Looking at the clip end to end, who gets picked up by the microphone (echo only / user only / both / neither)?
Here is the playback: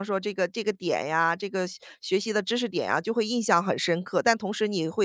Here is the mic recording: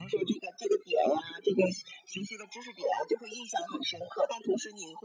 echo only